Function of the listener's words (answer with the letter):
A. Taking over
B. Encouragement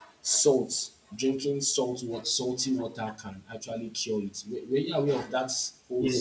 A